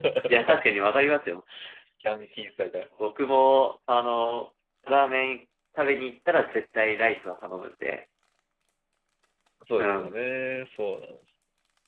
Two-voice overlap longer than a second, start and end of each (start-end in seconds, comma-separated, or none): none